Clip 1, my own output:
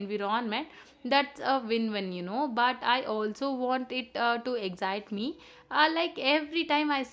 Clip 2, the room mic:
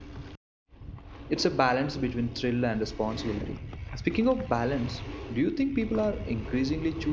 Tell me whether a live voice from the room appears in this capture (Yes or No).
Yes